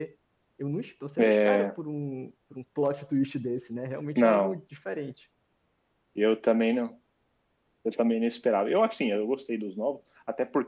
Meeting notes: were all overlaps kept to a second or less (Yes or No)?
Yes